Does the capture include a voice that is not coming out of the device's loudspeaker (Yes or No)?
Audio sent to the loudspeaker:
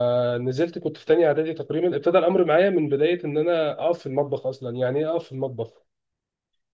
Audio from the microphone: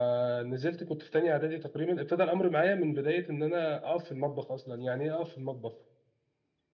No